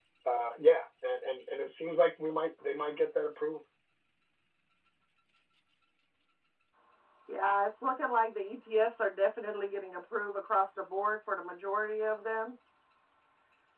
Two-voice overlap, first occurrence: none

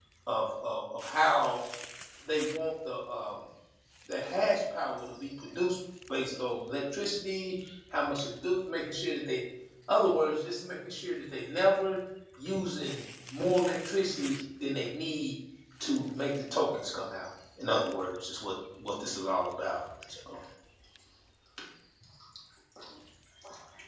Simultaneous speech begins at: none

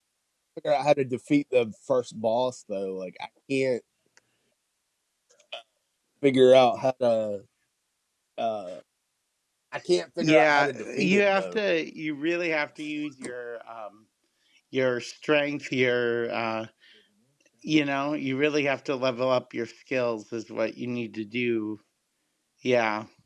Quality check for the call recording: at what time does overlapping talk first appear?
10.2 s

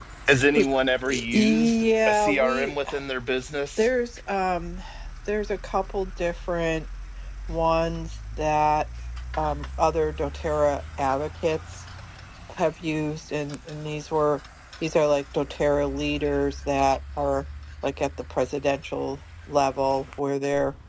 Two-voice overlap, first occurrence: 1.3 s

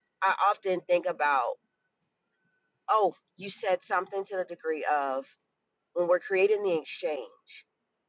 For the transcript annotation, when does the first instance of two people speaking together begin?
none

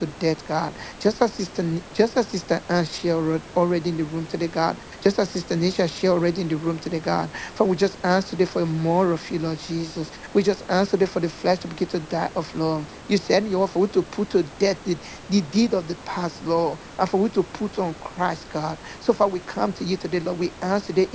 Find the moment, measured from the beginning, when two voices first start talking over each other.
none

